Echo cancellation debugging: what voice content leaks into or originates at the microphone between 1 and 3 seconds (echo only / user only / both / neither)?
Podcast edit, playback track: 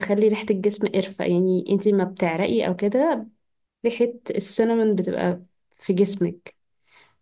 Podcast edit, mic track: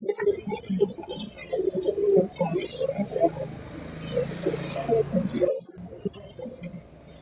echo only